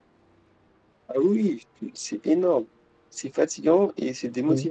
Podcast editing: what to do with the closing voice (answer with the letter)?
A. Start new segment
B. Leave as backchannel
A